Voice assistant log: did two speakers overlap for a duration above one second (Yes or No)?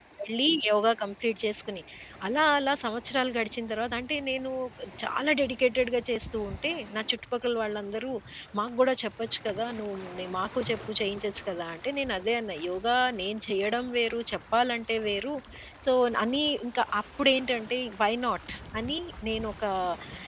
No